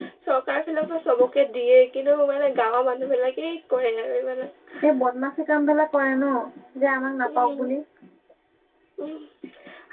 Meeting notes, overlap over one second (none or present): none